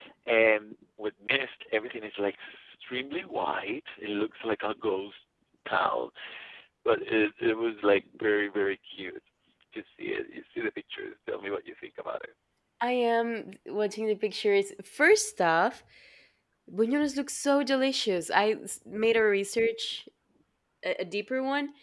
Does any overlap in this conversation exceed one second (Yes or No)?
No